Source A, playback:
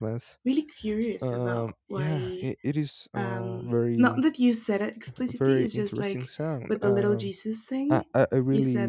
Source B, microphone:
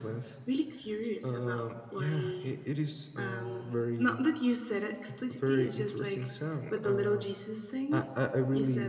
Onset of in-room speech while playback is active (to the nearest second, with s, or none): none